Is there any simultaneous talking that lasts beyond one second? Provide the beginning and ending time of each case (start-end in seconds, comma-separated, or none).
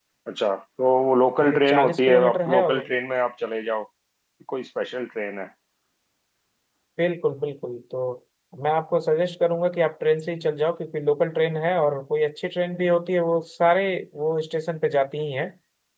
1.4-2.9